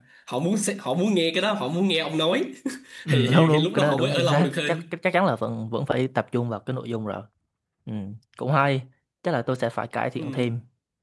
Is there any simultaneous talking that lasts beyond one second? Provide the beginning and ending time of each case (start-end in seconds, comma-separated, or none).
3.1-4.8